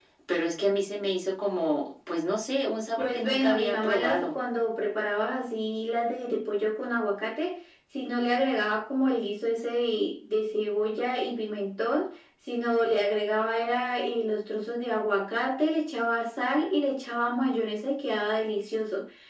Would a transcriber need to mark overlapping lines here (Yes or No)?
Yes